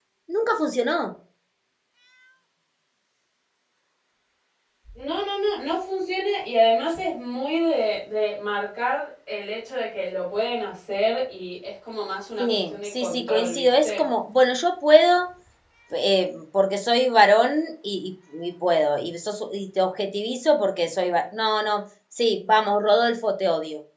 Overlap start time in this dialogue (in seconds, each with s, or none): 12.4 s